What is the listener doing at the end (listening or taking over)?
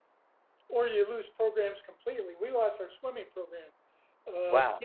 listening